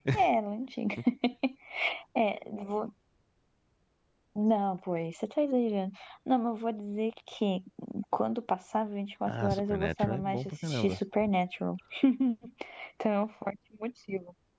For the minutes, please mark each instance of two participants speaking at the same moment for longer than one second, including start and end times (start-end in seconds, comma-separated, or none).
9.3-11.0